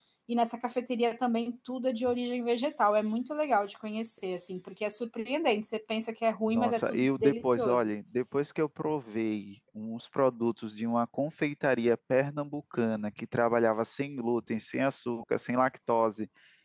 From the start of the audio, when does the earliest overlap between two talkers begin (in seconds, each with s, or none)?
6.5 s